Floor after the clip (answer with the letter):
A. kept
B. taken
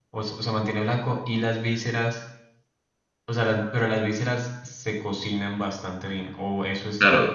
B